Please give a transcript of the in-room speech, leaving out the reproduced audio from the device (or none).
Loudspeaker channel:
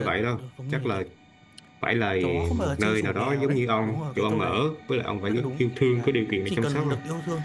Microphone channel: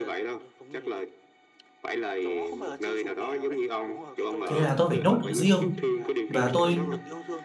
thế là tôi phải nhốt nó riêng và tôi